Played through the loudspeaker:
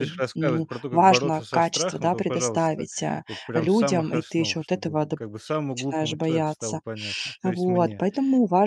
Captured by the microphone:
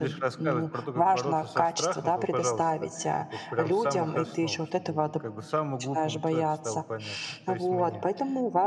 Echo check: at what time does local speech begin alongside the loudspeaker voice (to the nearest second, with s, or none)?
none